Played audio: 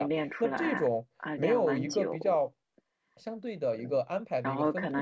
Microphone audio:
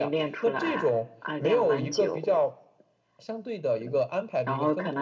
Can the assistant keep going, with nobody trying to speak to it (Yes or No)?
Yes